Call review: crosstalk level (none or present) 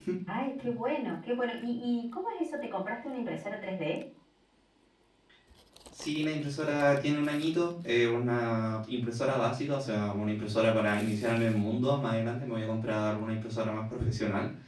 none